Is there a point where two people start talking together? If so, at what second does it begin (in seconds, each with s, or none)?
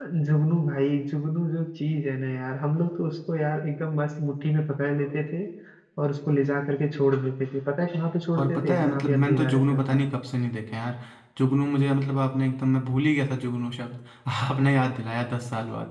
8.4 s